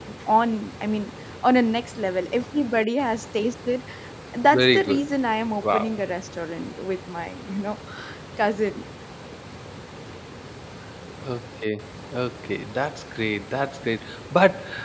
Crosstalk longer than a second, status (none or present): none